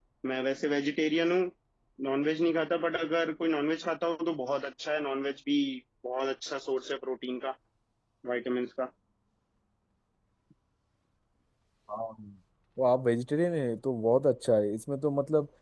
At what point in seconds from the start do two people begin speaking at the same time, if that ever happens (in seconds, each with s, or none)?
none